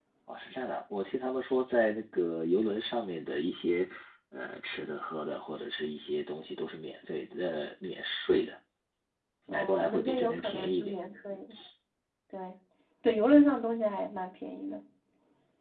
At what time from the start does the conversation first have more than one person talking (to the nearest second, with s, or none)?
9 s